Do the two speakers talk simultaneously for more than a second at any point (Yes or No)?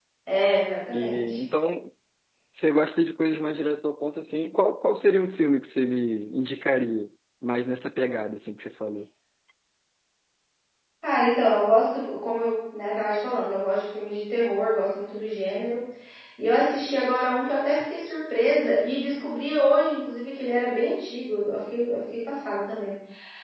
No